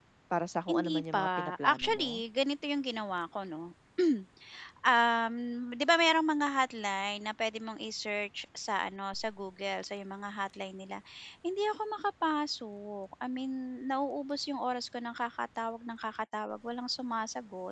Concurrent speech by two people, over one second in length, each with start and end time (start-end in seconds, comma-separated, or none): 0.7-2.1